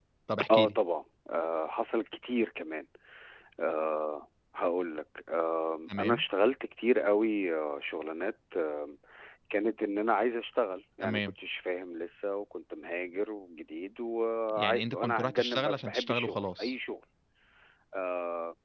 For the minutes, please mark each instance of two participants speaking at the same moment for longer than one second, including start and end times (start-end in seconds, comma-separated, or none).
14.6-16.8